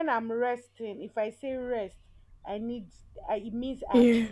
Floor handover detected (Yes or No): No